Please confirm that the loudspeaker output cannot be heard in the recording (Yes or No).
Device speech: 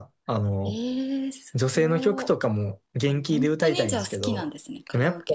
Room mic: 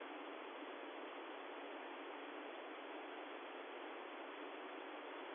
Yes